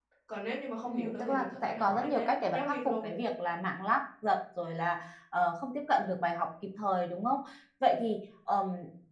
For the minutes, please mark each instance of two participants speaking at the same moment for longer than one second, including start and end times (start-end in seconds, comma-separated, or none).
0.8-3.1